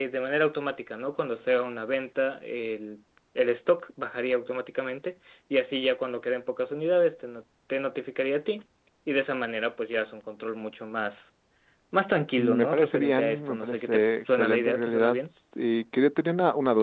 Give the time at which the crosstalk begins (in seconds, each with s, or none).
12.4 s